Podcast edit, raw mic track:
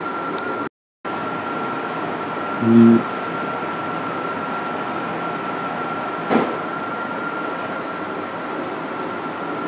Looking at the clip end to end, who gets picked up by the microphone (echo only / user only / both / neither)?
user only